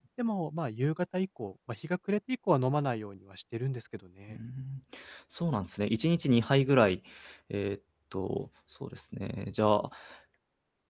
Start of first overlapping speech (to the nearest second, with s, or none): none